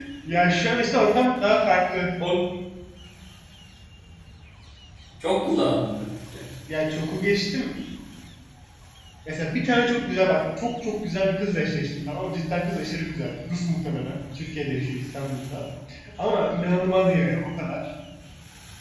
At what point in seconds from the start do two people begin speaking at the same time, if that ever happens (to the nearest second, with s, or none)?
none